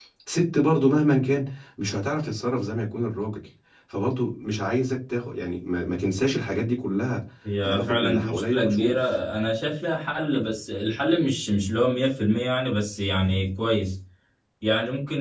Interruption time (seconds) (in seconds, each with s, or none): 7.6 s